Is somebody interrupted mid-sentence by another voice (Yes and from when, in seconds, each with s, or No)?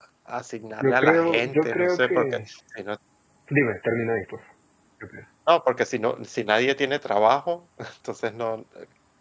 Yes, from 0.8 s